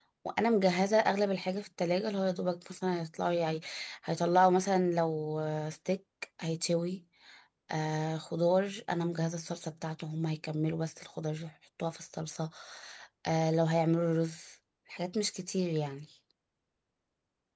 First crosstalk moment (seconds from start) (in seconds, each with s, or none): none